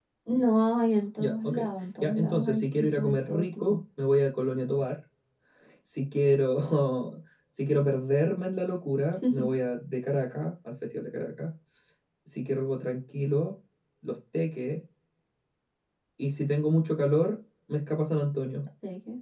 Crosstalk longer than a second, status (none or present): present